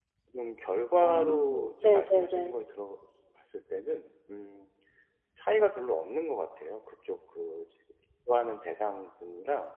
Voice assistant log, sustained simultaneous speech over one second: present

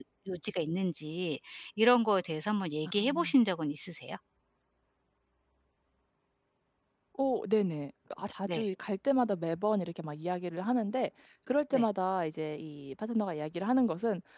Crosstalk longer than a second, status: none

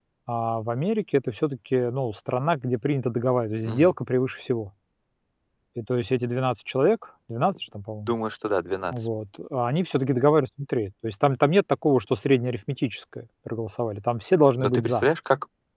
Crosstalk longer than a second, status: none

